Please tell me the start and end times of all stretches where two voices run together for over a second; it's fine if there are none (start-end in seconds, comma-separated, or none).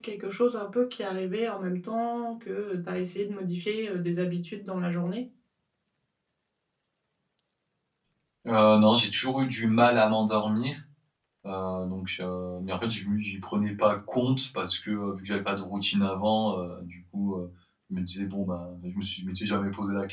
none